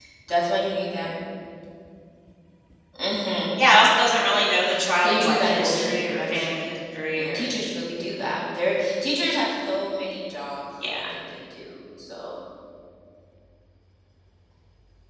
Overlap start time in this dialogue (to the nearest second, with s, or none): 5 s